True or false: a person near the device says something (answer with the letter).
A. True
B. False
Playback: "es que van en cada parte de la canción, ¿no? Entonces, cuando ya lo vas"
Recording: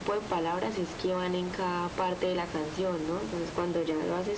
B